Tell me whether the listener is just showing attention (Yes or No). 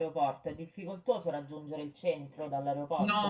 No